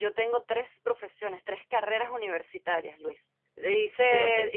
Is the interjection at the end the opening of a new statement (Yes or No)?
No